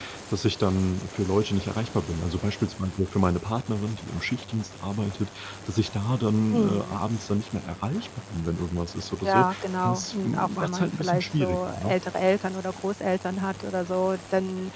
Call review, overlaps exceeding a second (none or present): present